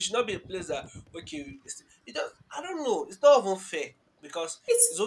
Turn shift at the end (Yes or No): No